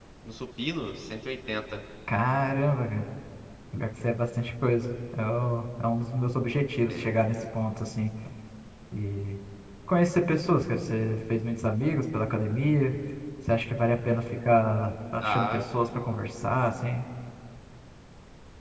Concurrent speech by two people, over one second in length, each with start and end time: none

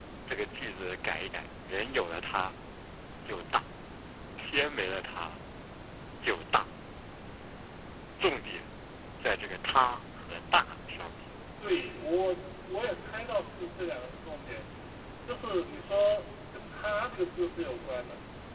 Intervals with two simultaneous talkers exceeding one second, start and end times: none

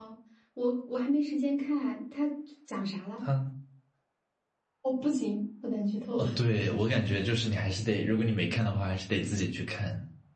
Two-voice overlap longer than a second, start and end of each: none

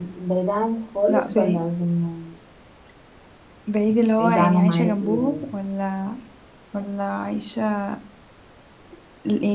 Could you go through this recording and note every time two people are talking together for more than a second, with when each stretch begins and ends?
4.2-5.4

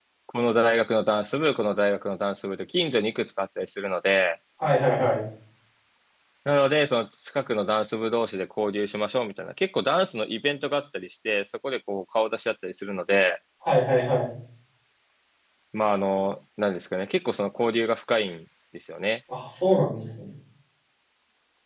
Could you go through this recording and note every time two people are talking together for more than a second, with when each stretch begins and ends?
none

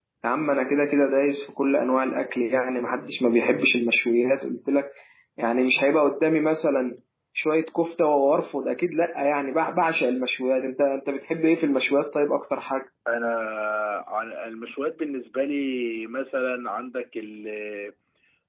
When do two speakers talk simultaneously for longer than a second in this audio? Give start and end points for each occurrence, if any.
none

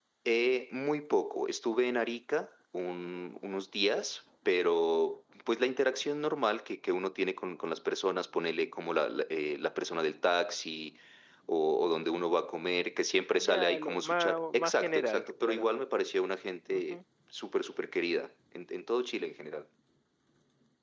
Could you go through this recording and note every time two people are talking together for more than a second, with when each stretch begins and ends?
13.4-15.7

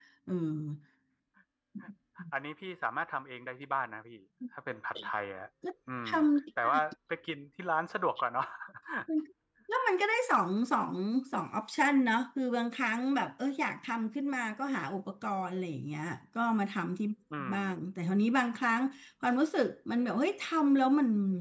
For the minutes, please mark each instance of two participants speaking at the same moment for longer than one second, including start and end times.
none

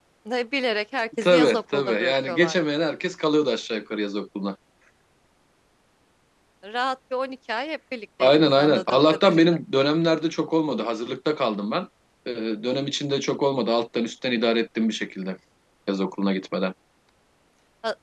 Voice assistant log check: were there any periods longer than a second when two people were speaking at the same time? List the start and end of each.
1.2-2.6, 8.2-9.4

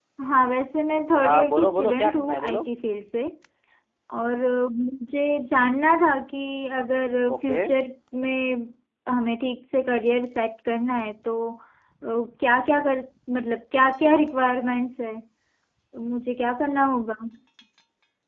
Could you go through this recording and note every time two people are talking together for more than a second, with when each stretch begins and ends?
1.2-2.7

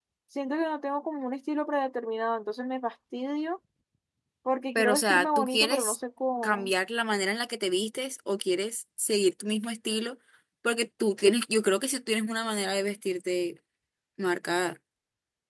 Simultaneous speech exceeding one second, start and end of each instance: 4.8-6.0

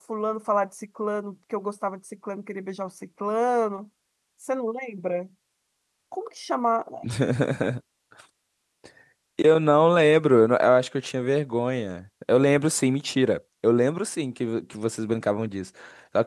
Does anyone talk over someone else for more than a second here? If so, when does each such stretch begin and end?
none

